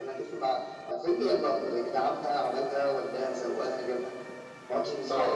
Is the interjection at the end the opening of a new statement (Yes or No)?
Yes